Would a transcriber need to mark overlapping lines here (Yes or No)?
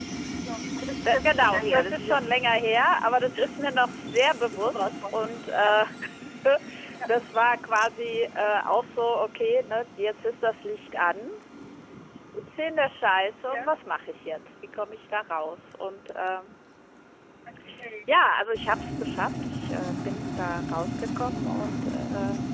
Yes